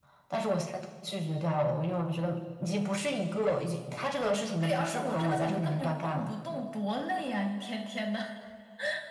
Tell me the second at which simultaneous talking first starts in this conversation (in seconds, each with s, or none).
4.6 s